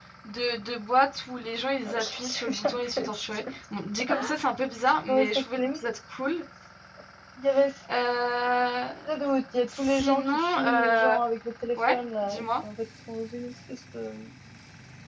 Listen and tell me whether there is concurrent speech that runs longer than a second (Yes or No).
Yes